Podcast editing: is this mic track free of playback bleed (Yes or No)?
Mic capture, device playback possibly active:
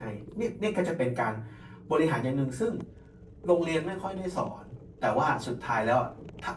Yes